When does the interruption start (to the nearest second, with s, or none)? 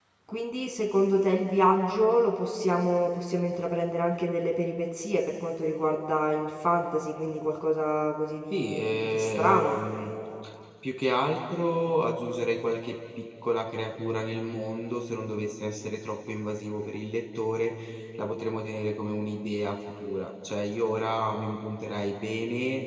9 s